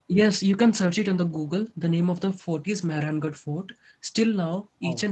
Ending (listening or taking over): listening